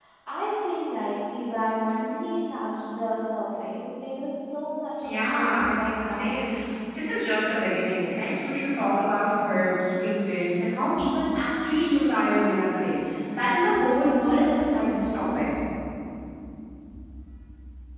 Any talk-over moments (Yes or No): Yes